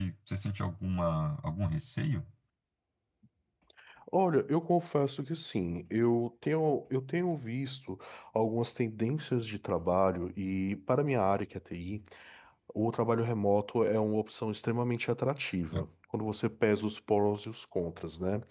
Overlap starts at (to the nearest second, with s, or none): none